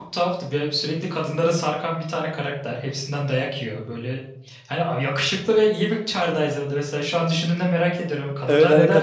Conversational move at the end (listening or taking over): taking over